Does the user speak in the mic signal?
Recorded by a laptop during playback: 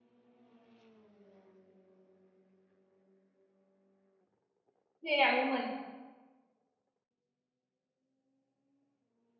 Yes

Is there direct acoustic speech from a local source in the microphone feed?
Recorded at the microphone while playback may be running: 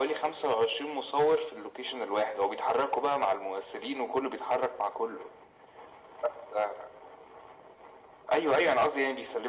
No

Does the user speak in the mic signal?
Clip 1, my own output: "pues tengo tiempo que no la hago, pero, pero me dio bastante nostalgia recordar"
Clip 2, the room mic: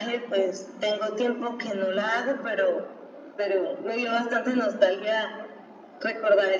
No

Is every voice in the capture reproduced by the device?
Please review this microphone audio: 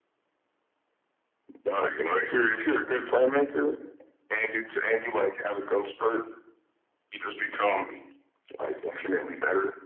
Yes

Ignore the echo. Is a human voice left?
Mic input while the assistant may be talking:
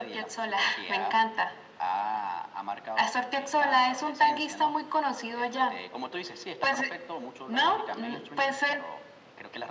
No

